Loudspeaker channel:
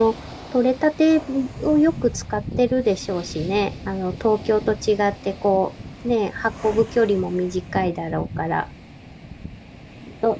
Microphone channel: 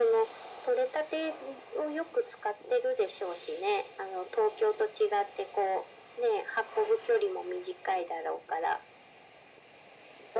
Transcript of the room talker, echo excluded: none

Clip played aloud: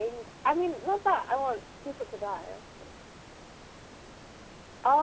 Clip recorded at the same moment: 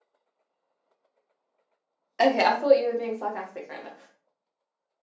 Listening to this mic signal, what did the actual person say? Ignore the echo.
Okay, I thought you were being sarcastic right now.

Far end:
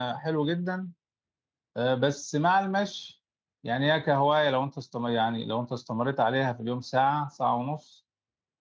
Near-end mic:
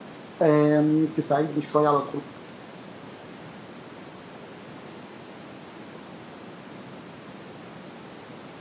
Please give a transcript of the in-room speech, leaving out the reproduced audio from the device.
آم، تساعدني شويه على الخروج

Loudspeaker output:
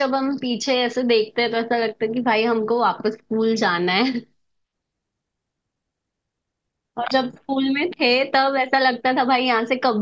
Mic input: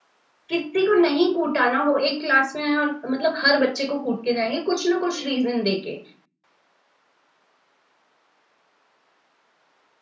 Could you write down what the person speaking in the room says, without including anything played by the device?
किसी को नहीं कूटा ना वो एक क्लास में है और मतलब हर बच्चे को कूट के जाएंगे कुछ ना कुछ रीजन देके

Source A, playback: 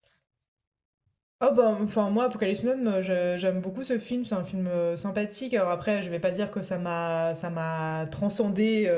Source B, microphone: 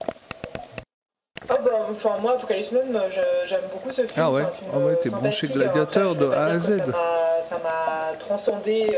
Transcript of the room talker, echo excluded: Ah ouais, ah ouais, t'es branché gladiateur de A à Z.

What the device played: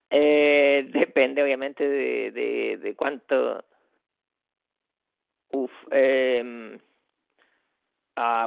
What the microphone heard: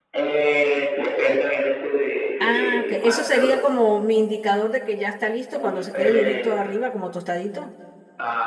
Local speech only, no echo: Ah, ok, eso sería como mi indicador de que ya está listo cuando se quede durito arriba, como tostadito.

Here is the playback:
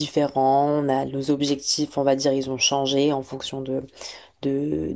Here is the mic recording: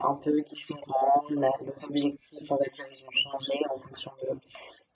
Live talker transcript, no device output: none

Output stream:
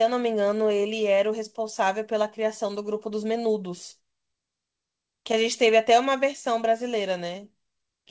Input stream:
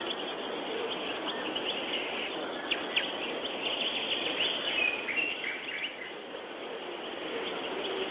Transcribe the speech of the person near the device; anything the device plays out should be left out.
none

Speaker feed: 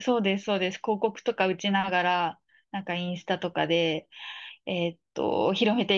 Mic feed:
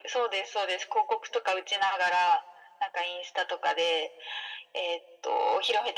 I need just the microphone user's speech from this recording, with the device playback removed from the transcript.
none

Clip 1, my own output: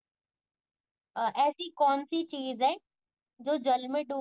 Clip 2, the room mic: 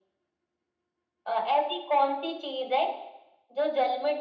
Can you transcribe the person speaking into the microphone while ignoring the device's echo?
none

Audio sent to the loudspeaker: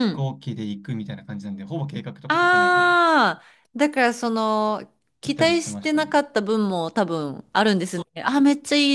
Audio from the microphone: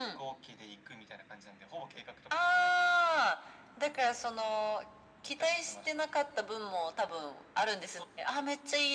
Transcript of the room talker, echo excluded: none

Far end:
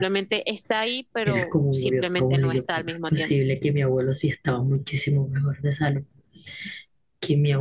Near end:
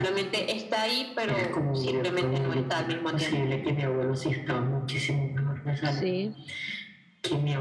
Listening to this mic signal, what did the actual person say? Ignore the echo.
sí,

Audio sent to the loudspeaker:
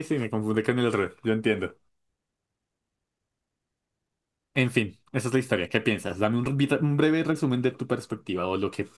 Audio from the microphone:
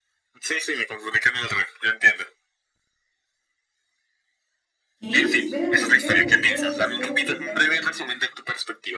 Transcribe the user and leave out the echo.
¿Qué? Espérate, espérate, espérate, espérate, espérate.

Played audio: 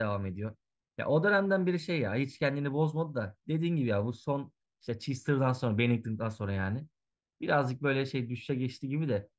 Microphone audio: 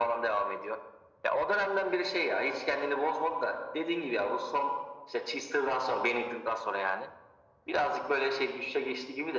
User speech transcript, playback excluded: none

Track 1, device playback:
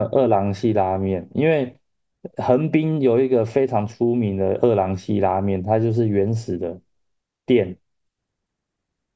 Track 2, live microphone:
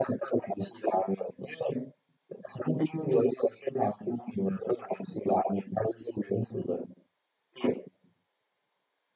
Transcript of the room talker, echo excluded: none

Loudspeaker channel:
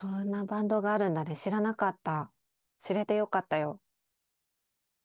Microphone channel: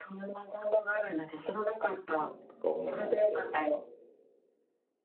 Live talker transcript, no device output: 気持ちとか思い出して、

